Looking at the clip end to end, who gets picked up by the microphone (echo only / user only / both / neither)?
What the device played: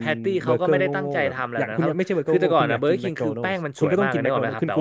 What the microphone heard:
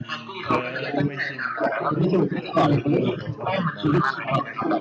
both